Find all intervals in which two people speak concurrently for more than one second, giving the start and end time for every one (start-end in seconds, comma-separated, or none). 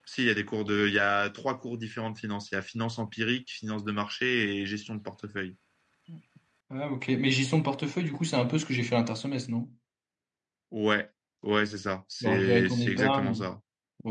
12.2-13.4